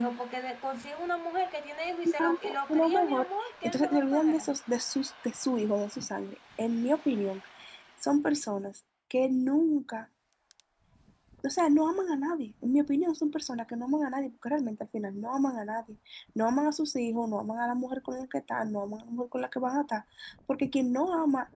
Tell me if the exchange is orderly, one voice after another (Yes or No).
No